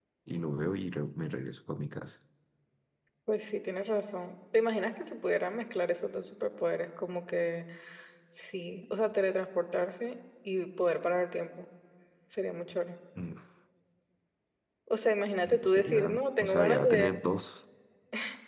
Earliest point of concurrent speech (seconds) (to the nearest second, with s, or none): 16 s